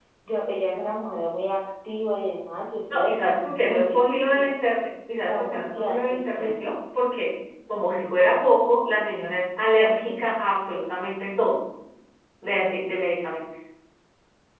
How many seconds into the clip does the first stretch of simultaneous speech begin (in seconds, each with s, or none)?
2.9 s